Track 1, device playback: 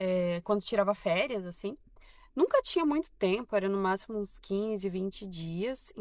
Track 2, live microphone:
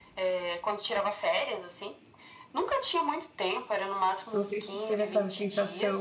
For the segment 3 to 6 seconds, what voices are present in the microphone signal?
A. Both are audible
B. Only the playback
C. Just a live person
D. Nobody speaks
A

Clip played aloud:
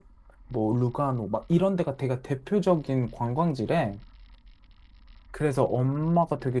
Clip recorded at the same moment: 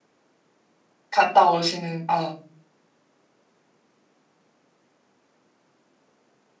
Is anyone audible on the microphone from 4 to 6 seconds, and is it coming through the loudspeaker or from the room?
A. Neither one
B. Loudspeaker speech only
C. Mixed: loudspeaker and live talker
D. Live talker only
A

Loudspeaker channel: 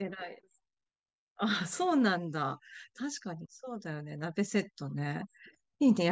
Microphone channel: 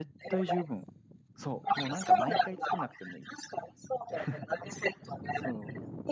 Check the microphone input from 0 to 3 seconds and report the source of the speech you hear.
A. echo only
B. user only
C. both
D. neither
C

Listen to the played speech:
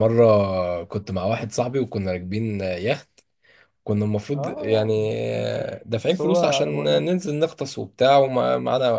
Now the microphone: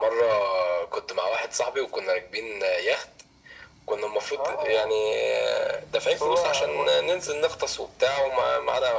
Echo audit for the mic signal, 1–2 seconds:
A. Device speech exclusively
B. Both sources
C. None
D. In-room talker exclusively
A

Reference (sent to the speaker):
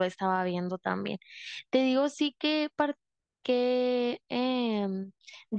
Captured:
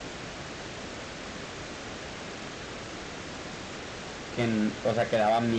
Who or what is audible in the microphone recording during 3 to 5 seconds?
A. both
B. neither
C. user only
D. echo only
C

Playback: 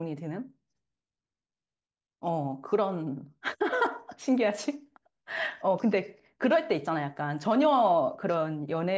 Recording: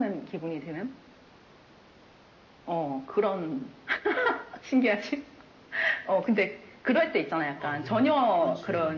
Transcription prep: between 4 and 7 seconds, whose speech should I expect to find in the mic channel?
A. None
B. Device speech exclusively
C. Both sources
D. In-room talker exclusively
B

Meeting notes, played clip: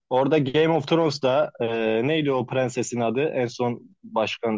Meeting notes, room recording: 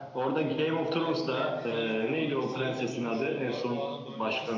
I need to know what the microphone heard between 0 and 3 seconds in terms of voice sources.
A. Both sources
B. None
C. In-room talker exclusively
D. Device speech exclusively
A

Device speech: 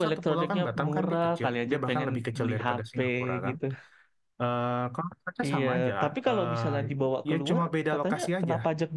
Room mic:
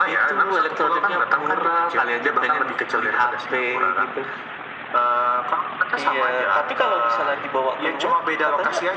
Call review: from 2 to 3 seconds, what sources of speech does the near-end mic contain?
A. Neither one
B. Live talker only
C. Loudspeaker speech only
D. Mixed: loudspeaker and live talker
C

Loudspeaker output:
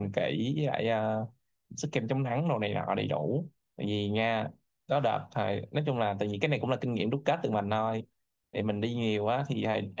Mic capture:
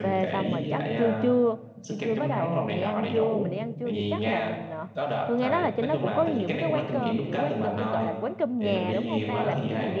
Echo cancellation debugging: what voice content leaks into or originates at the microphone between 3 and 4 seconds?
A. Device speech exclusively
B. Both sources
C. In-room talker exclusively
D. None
B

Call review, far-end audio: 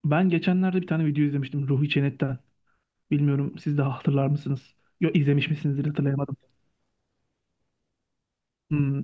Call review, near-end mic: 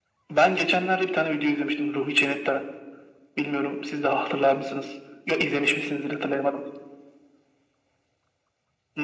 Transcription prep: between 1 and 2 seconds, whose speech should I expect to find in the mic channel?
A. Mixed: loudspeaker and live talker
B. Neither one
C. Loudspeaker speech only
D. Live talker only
C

